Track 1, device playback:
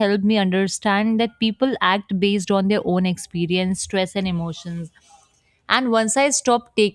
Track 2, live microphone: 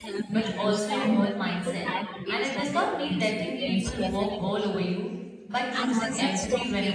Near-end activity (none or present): present